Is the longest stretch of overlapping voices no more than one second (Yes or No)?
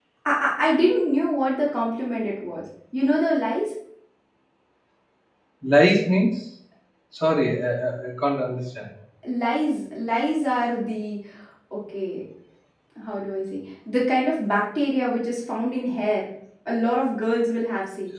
Yes